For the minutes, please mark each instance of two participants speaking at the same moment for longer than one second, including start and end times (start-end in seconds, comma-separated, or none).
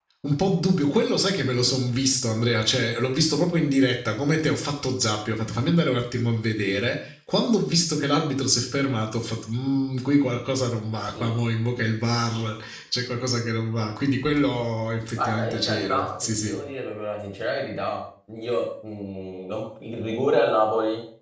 15.2-16.6